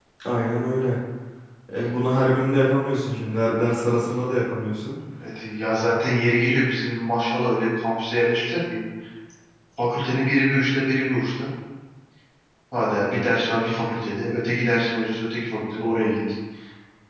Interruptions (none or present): none